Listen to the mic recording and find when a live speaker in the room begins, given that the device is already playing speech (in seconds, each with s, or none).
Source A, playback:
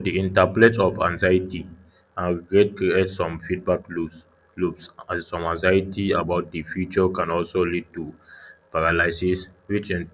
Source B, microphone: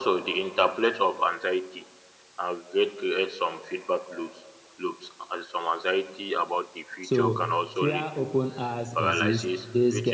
7.0 s